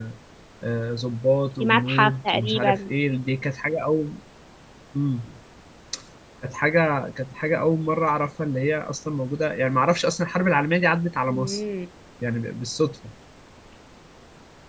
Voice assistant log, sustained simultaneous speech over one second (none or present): present